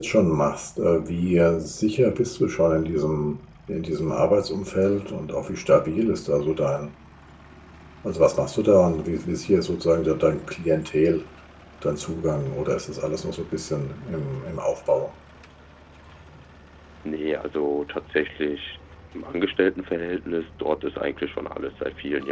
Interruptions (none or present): none